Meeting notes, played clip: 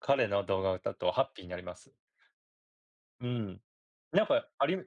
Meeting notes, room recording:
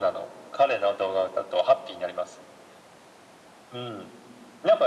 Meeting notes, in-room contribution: none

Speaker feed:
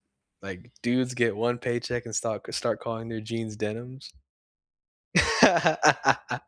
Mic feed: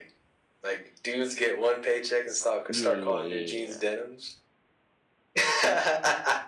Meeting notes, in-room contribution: present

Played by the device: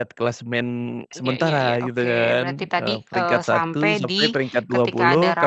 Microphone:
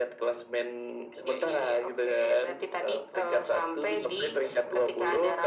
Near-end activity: none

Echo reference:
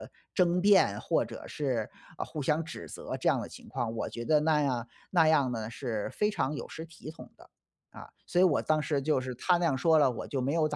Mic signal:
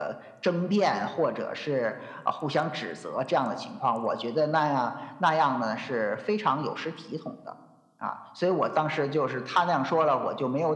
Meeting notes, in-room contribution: none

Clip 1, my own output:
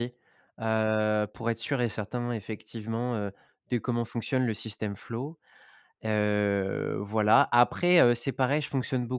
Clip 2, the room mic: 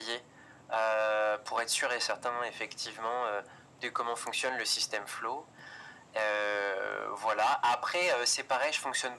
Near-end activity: none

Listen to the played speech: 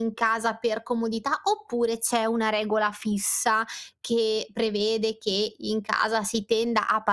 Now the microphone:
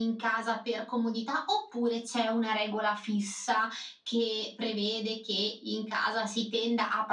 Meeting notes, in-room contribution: none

